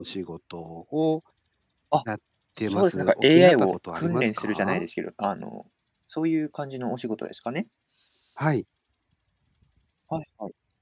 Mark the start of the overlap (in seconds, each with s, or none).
2.6 s